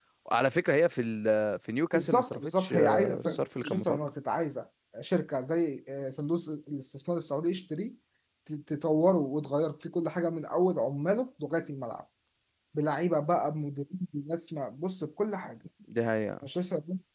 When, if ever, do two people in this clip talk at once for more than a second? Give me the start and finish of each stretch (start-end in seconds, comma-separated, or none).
1.9-4.0